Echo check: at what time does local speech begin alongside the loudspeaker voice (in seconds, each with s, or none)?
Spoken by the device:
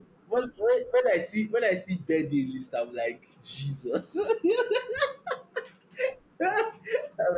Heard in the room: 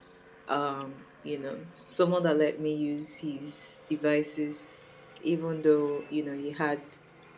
0.5 s